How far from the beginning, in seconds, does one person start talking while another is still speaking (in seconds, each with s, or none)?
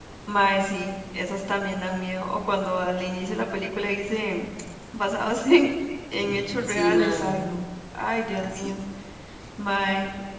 6.1 s